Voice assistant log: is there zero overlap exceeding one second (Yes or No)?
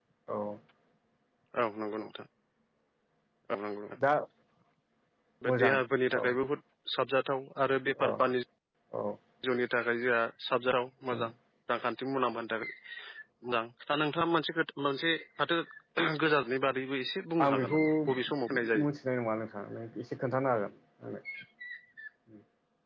No